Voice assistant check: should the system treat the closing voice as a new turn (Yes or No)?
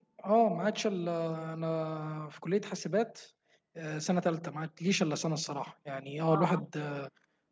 No